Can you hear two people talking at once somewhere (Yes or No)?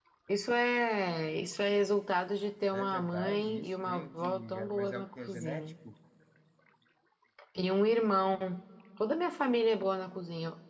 Yes